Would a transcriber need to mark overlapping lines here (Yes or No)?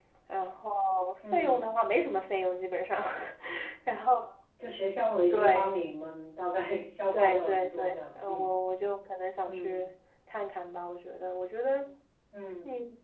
Yes